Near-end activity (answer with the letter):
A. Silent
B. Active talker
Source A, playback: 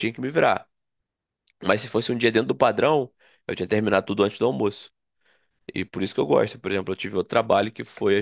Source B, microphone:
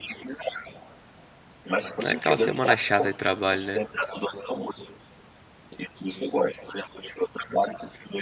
B